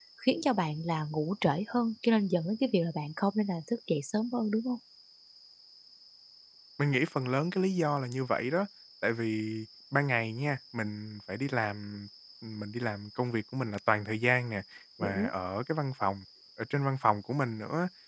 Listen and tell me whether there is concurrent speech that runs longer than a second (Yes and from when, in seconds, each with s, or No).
No